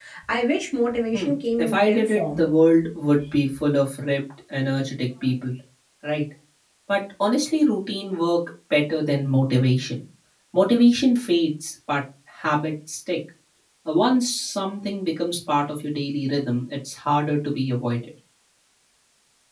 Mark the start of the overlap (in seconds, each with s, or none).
1.1 s